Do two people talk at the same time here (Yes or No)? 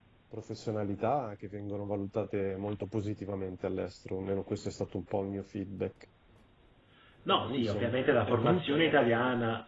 Yes